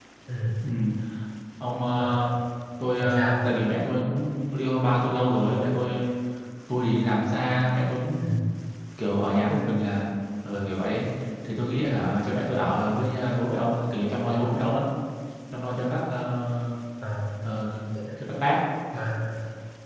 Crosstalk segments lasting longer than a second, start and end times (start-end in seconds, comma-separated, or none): none